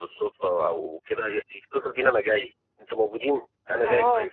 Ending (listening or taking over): taking over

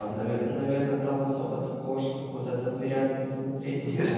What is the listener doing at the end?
taking over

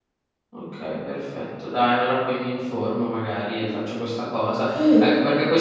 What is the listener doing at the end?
listening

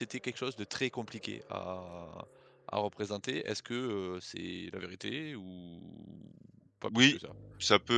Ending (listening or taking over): taking over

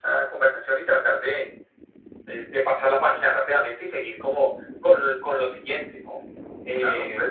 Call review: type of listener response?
taking over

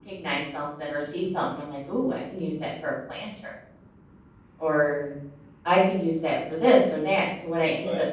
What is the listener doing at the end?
taking over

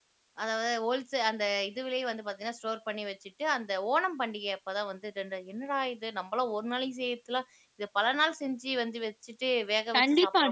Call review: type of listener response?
taking over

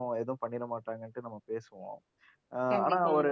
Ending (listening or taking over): listening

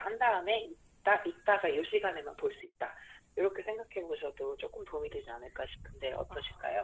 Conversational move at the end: taking over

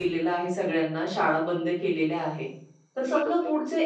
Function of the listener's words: listening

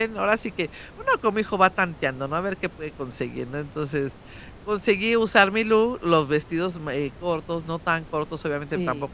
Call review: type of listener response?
listening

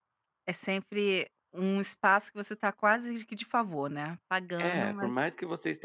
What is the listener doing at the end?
taking over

